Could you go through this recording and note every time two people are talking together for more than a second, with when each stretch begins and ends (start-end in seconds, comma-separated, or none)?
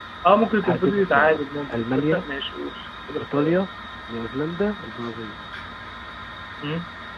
0.6-2.2